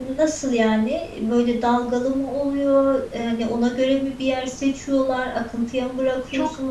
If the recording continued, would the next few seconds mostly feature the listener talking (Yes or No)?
Yes